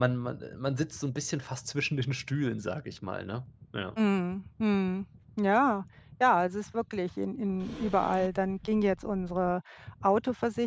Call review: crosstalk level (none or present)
none